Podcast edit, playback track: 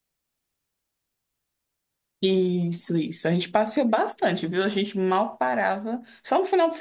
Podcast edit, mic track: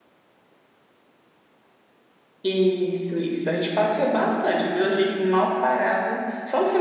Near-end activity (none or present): none